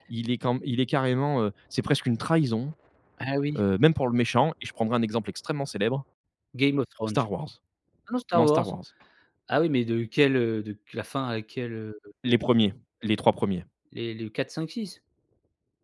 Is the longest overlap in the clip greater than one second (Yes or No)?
No